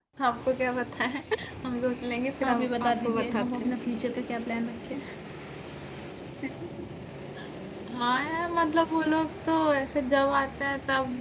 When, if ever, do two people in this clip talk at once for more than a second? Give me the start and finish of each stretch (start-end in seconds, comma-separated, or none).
2.4-3.7